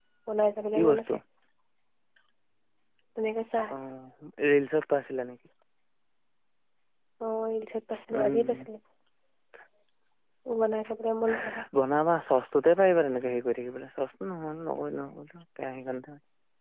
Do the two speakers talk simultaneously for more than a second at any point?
No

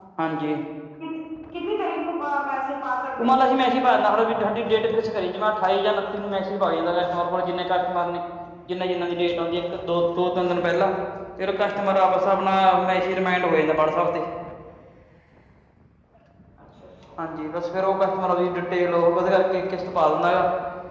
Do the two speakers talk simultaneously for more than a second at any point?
No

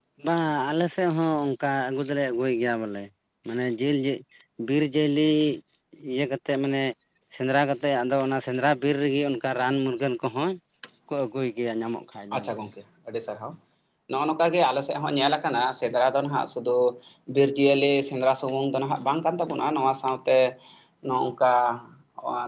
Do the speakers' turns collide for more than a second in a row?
No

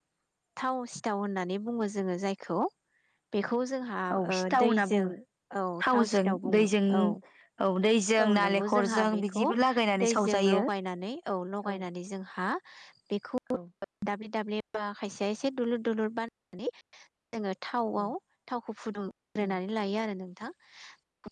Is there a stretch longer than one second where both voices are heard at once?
Yes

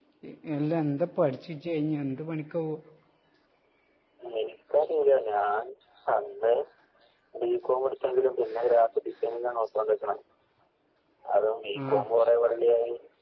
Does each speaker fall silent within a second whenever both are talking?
Yes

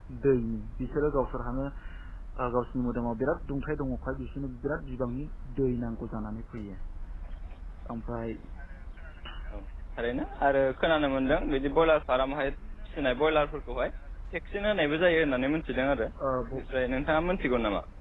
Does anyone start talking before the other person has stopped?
No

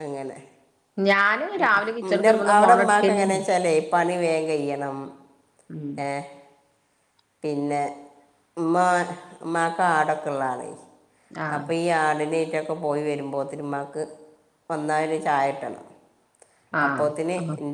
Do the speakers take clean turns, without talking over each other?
No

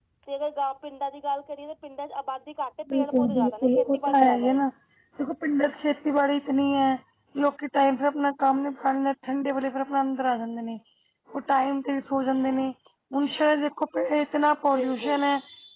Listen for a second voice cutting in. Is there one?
Yes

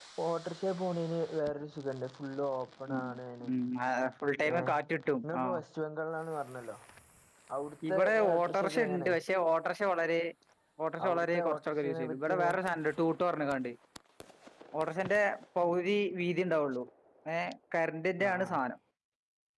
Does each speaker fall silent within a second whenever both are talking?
No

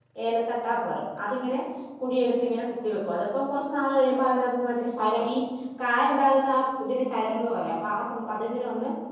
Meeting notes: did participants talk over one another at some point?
No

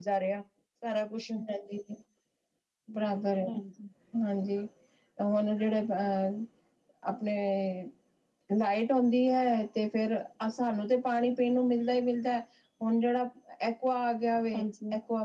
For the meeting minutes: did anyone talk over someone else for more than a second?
No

